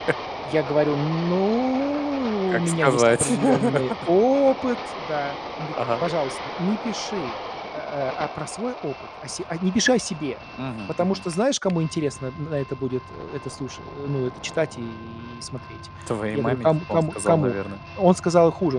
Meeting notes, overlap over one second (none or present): present